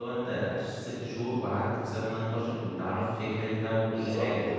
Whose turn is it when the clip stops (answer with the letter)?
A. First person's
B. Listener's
B